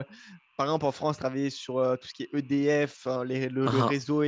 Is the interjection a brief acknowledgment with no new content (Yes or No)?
Yes